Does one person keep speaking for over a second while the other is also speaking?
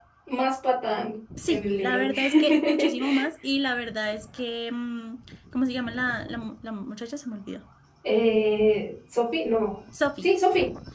Yes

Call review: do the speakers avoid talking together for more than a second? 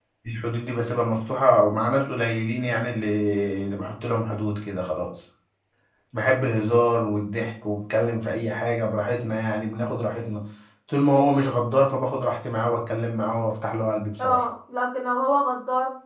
Yes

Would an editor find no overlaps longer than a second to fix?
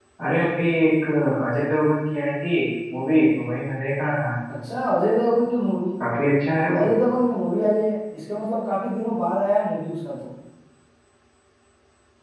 Yes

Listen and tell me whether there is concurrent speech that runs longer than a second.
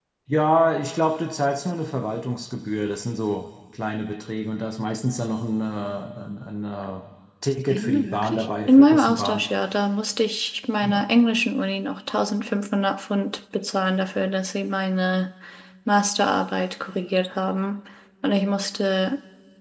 Yes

